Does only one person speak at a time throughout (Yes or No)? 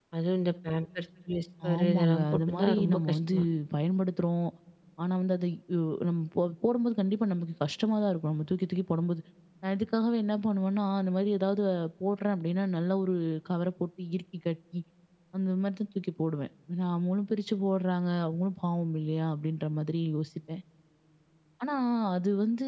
No